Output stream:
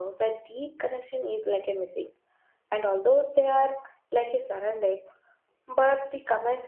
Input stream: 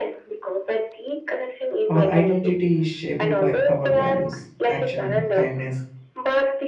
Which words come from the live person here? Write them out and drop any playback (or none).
our identity is shaped by our values, action, kindness,